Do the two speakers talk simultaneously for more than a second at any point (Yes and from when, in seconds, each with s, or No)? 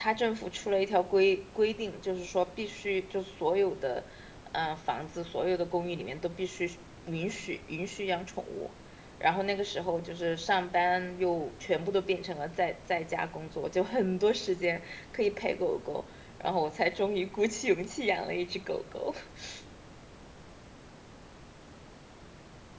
No